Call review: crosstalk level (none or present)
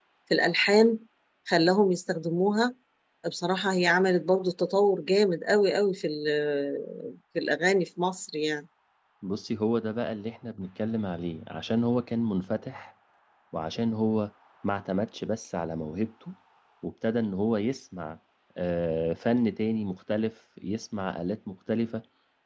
none